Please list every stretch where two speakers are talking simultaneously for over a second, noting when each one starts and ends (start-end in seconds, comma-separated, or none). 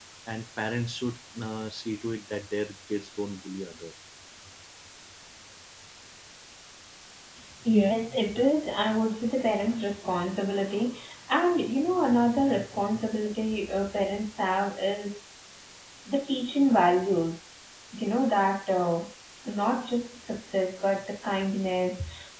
none